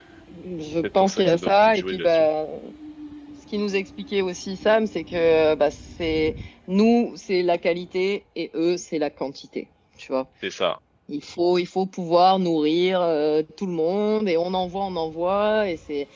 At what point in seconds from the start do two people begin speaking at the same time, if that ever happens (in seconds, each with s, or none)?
1.0 s